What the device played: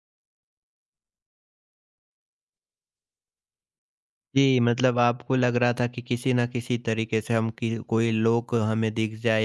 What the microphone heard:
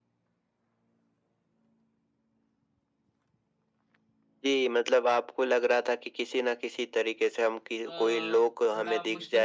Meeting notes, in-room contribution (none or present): present